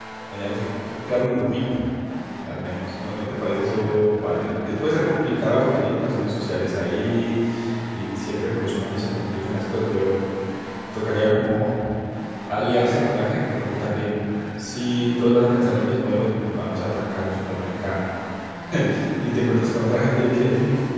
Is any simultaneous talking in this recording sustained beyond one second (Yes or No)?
No